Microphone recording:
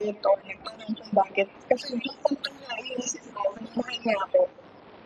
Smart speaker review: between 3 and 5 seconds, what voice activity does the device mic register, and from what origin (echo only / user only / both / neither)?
echo only